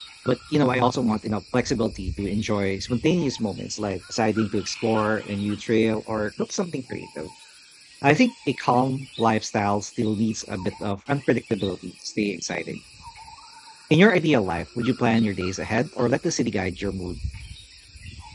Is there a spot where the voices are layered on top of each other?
No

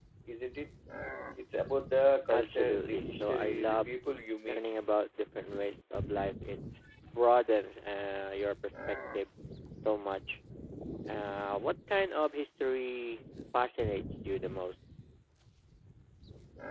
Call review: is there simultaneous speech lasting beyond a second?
Yes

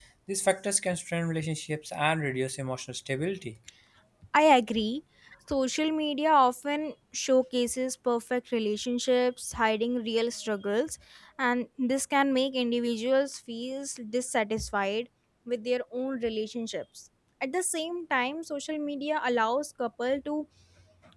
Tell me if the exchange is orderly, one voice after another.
Yes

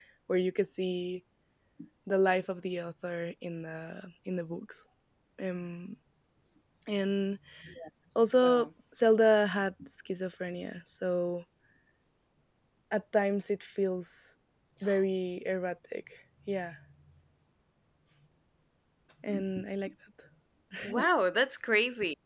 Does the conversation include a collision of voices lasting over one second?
No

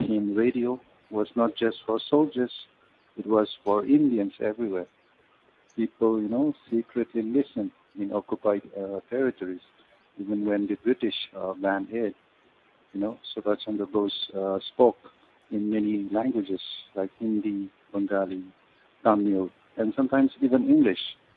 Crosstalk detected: No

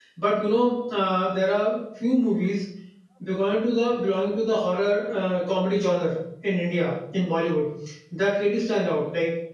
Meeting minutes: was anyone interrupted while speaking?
No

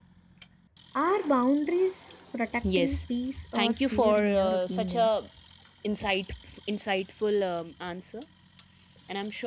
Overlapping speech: Yes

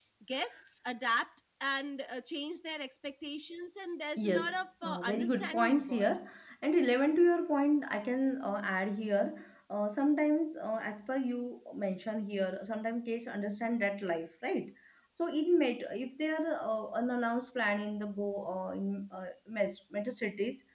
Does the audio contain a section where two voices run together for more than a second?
Yes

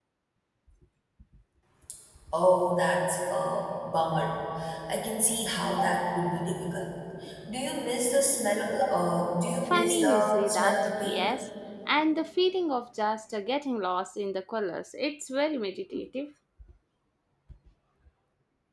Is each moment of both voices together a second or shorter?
No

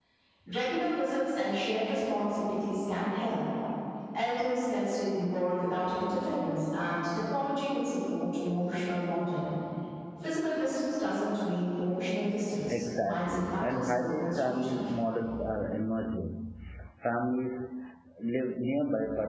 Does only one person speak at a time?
No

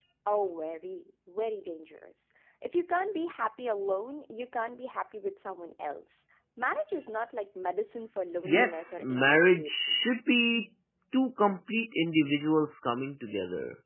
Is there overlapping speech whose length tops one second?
Yes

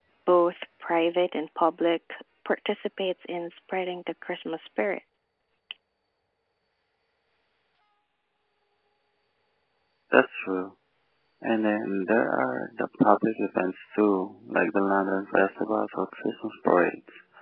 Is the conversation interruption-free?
Yes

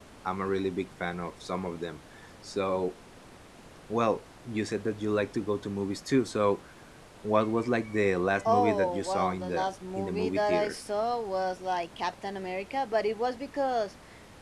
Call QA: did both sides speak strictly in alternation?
No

